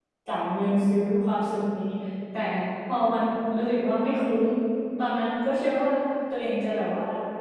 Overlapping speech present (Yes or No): No